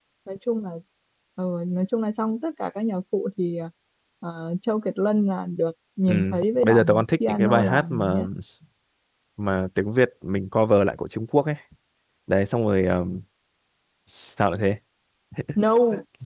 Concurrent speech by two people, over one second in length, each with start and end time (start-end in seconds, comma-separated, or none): 6.1-8.2